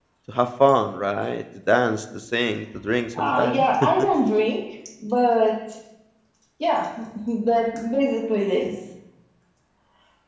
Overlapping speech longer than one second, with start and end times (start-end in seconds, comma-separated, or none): none